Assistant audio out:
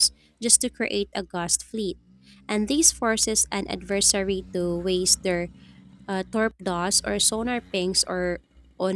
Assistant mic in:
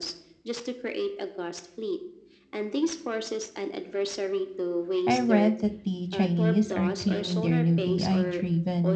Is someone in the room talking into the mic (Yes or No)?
Yes